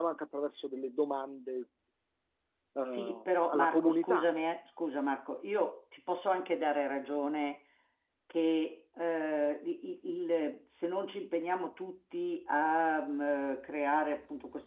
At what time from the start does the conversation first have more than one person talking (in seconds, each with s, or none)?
2.9 s